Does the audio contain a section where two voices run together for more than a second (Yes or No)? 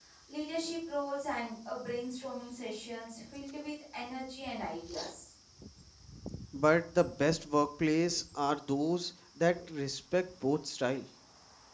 No